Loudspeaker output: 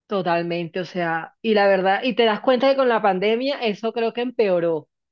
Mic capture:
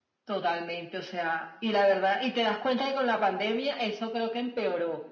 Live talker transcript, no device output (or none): none